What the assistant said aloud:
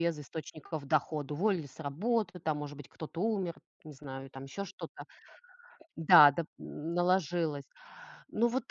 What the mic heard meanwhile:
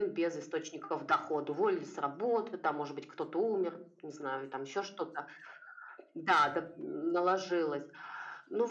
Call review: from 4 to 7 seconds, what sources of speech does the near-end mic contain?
echo only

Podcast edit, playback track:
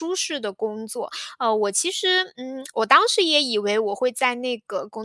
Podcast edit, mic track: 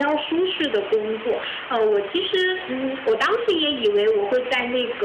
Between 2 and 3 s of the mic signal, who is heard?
echo only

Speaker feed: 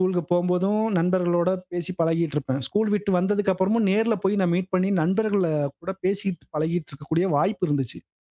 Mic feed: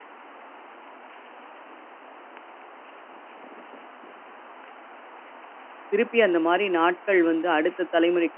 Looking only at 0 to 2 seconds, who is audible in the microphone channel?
neither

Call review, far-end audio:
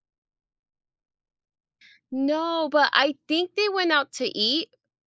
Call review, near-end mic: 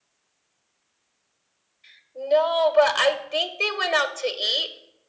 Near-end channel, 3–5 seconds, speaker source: echo only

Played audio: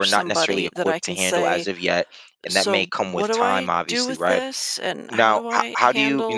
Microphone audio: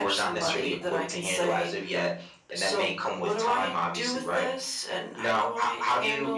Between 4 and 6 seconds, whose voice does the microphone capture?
echo only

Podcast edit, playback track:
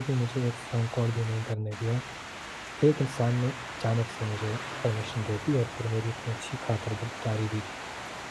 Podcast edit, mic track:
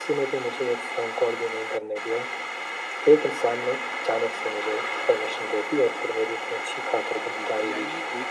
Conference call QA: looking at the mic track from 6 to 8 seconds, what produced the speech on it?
both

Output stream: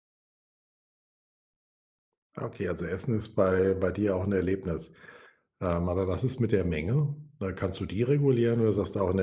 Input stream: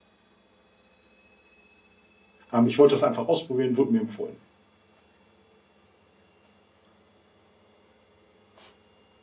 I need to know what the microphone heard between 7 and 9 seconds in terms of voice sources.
neither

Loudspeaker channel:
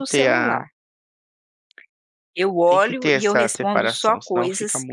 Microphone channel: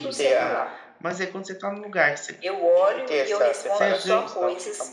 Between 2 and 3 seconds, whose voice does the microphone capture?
both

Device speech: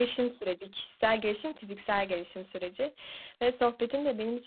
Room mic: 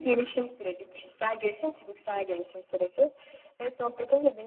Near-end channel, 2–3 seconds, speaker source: echo only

